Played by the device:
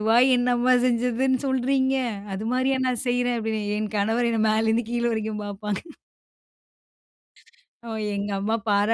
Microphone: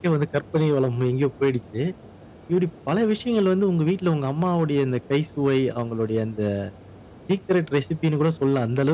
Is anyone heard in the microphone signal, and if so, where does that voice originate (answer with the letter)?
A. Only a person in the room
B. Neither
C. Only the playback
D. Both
A